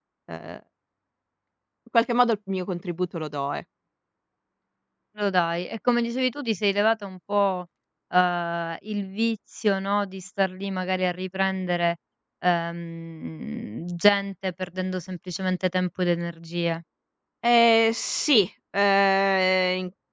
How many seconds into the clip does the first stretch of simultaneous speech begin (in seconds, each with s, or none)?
none